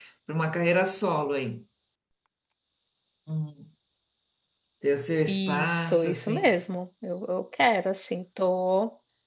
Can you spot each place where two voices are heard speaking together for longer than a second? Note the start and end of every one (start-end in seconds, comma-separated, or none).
5.3-6.5